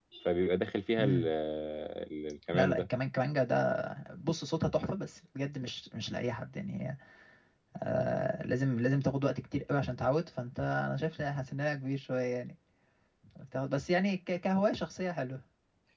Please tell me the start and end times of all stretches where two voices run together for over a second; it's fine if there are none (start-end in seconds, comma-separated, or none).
none